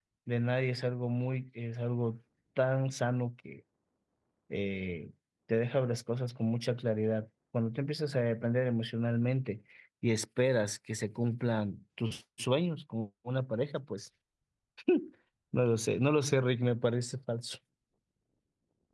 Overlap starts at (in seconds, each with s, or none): none